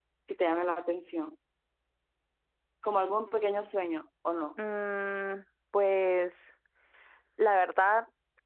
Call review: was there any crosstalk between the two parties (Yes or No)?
No